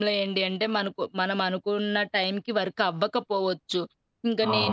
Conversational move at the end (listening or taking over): listening